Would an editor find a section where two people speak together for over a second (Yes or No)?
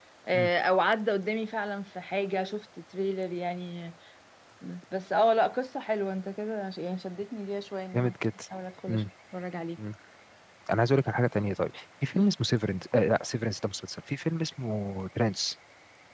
No